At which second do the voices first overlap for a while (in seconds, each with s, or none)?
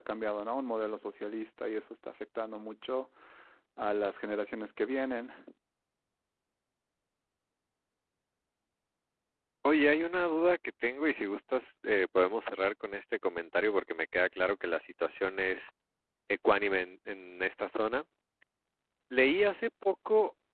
none